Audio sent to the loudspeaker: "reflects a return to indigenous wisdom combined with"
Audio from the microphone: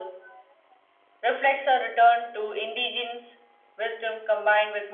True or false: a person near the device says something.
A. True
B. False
B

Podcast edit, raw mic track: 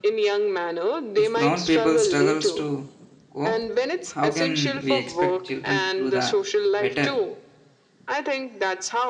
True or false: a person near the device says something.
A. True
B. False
A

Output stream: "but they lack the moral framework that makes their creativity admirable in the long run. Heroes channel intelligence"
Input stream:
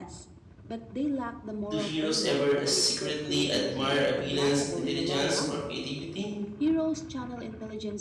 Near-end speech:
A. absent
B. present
B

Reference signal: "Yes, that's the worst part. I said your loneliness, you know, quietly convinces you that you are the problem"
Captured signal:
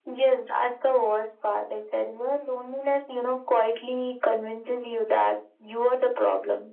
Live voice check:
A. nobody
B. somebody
A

